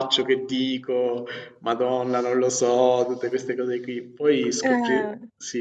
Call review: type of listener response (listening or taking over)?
listening